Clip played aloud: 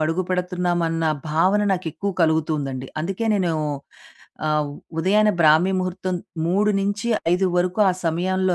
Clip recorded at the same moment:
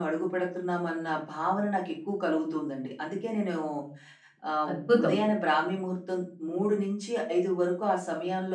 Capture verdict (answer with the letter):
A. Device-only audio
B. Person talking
B